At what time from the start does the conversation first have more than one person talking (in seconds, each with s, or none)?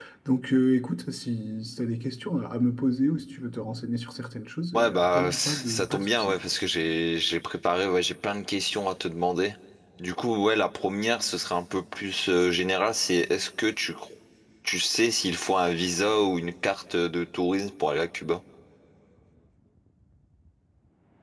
4.7 s